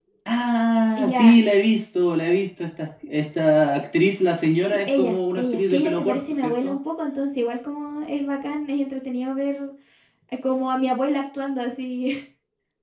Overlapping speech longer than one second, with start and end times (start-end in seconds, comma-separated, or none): 4.6-6.8